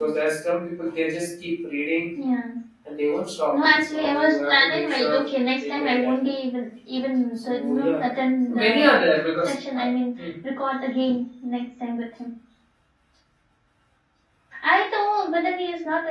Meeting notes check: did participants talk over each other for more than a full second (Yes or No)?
Yes